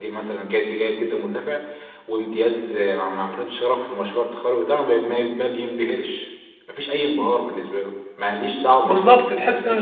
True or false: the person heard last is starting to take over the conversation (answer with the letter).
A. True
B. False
A